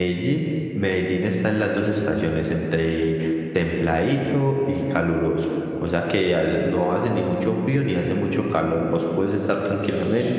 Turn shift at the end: No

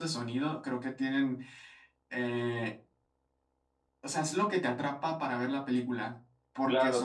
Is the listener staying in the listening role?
No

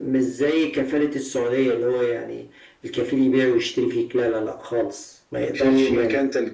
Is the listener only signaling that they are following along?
No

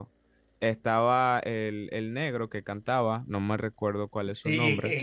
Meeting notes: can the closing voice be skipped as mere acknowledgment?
No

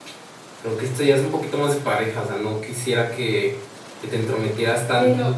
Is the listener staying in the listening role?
No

